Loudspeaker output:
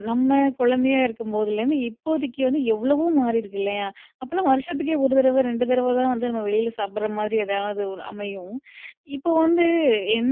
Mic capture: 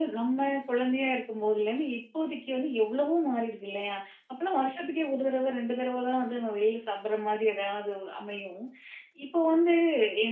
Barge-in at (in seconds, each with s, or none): none